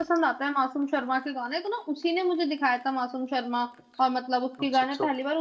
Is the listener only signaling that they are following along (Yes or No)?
Yes